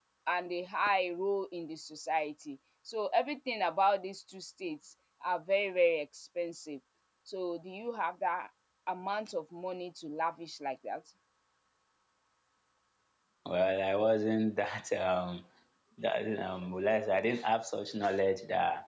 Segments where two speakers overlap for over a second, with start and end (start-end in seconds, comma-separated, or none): none